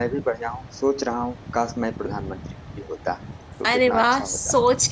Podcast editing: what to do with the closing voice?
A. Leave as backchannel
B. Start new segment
B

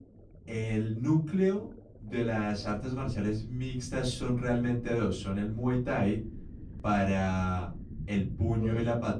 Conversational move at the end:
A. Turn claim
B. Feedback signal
B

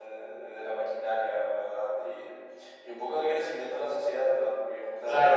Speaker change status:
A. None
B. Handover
B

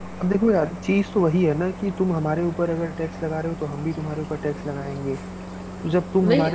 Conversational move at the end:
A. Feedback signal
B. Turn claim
A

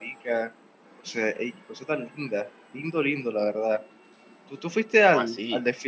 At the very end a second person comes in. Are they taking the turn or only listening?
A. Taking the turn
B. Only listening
B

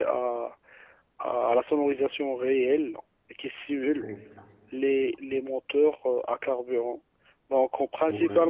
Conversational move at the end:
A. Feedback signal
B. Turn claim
A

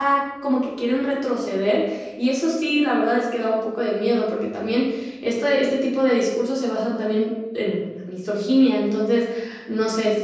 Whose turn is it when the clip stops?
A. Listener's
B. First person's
B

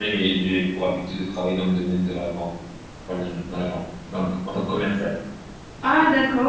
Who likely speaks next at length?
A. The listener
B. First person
A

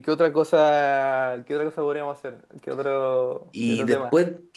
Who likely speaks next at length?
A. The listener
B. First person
A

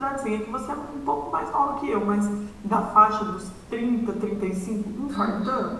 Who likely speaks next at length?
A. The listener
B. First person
A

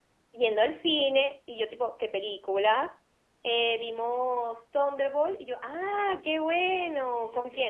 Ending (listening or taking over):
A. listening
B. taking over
A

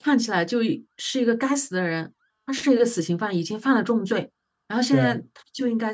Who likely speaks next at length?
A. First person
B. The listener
A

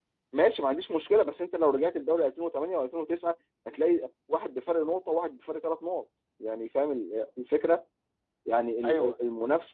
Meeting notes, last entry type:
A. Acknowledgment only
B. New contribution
A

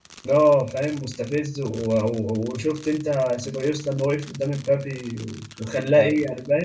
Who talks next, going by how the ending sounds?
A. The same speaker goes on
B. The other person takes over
B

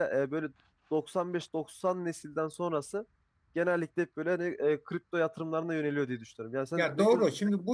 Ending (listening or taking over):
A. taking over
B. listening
A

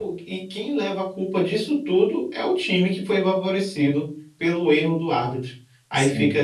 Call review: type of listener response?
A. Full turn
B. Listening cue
B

